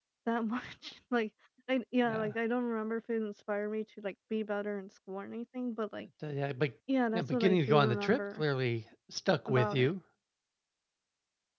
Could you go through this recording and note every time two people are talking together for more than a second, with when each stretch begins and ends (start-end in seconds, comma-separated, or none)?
7.1-8.4